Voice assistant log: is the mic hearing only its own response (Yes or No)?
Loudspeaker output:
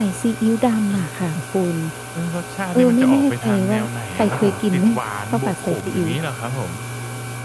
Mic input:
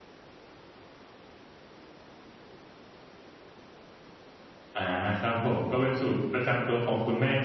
No